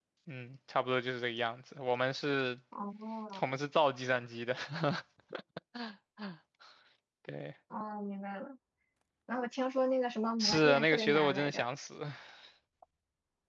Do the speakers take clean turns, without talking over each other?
No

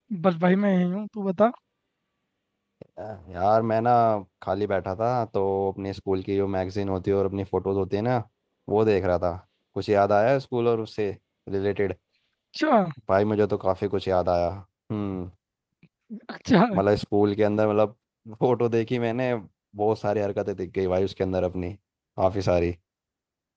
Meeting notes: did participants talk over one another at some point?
No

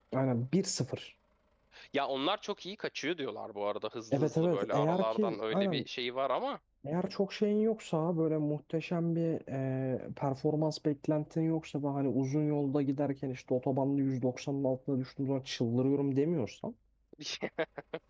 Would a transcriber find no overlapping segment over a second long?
No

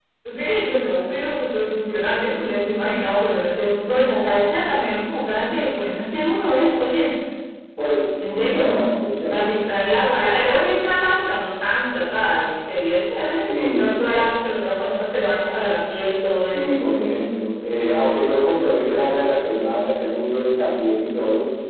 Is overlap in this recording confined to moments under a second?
Yes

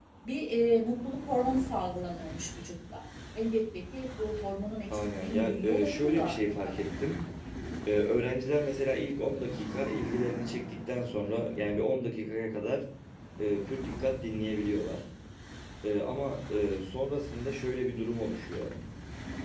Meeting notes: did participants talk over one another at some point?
Yes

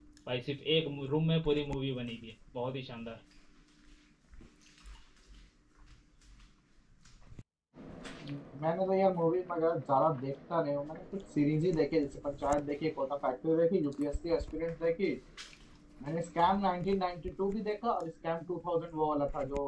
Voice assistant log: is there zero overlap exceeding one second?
Yes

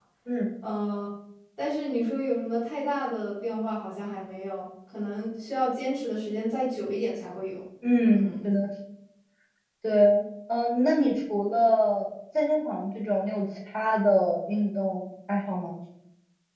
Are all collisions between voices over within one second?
Yes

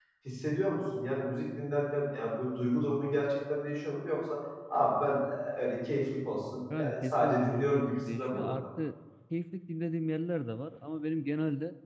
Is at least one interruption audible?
Yes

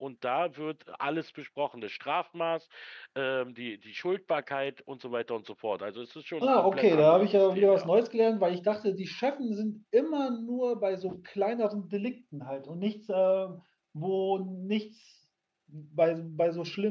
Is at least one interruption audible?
Yes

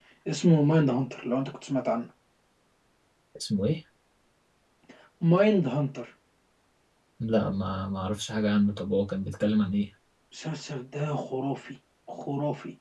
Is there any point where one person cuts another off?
No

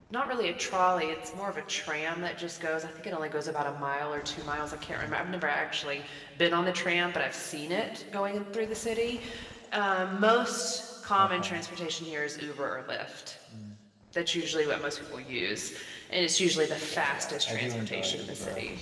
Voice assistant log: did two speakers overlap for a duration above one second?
Yes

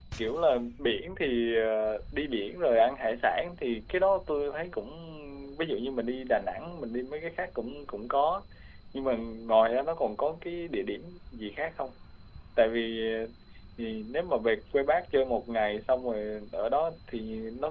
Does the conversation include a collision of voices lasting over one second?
No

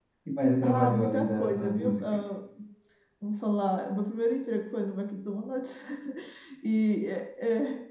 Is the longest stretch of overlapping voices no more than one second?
No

